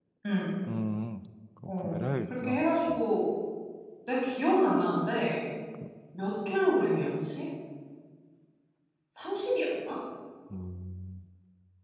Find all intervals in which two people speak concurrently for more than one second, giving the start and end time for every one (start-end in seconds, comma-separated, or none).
1.7-3.0